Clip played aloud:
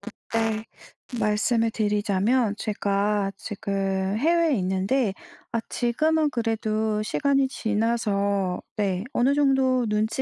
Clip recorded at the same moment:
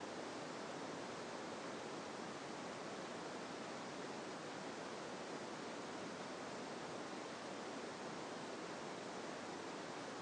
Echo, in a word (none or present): none